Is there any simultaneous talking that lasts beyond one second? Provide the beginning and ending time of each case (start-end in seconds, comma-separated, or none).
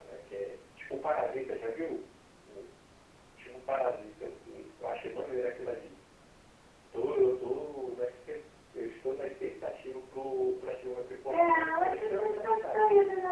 11.3-12.8